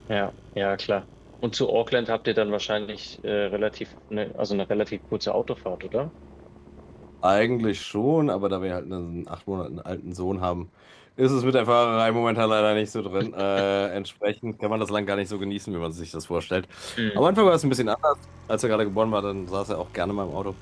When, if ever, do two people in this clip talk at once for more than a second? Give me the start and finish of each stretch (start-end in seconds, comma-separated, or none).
none